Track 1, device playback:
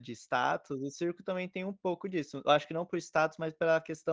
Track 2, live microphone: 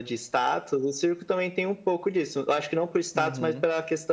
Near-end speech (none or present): present